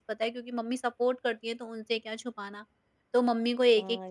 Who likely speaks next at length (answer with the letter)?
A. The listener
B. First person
A